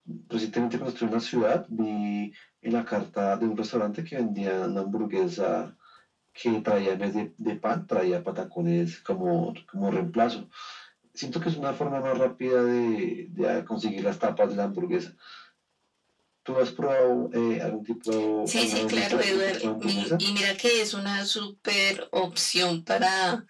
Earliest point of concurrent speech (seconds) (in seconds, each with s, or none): 18.5 s